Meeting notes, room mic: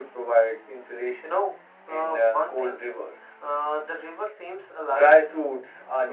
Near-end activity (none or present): none